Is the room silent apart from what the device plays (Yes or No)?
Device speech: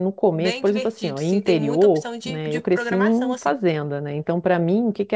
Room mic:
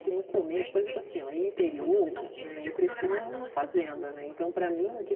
Yes